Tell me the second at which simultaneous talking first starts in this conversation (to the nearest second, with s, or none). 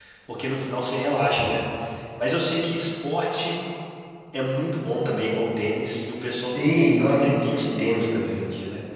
7 s